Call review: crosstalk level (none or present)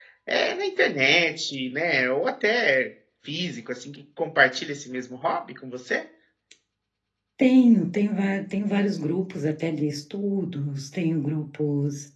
none